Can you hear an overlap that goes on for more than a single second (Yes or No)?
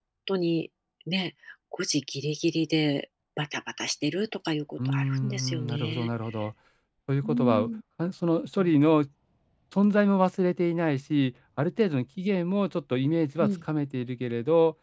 Yes